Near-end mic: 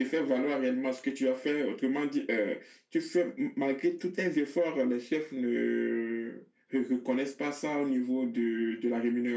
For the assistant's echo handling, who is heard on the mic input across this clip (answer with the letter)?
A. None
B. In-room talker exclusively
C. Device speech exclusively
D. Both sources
C